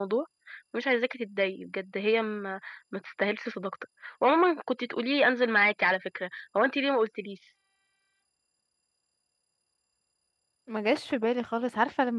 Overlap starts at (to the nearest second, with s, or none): none